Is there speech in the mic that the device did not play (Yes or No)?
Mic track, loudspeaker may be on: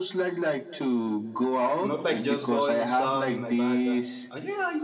Yes